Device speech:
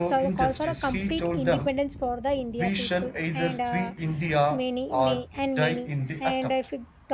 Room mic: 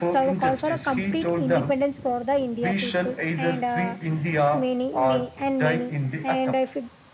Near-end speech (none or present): none